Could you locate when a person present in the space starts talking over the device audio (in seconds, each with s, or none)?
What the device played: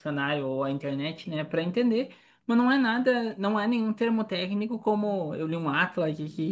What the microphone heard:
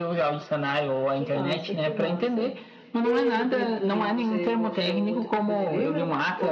1.1 s